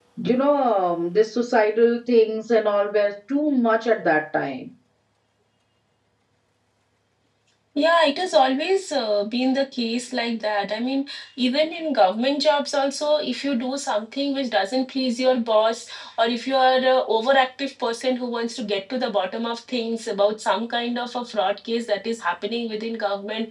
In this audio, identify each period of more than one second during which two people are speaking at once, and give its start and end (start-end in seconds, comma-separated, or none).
none